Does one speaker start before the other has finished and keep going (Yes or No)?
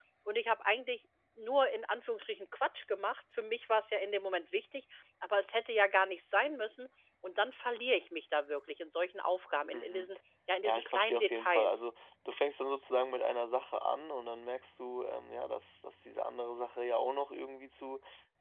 Yes